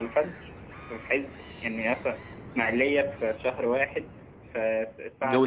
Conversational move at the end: listening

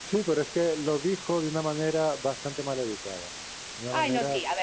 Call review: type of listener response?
taking over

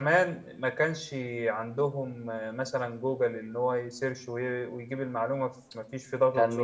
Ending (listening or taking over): taking over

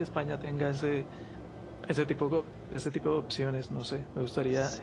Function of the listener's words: listening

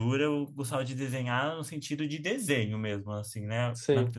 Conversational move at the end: listening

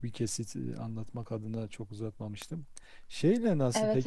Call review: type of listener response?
listening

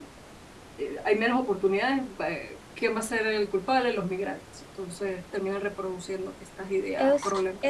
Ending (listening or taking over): taking over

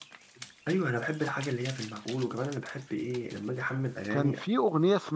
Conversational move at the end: taking over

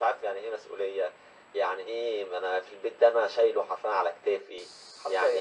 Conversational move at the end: listening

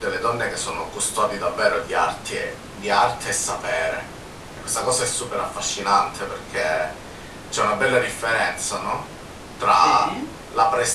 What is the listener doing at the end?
listening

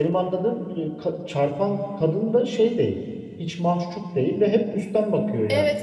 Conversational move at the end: listening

